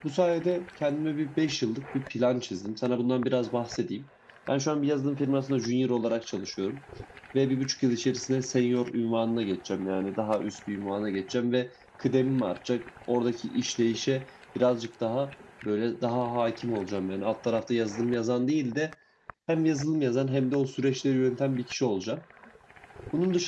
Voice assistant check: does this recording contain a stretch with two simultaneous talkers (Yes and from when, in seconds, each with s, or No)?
No